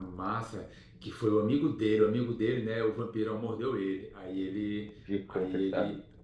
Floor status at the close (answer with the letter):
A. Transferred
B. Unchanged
B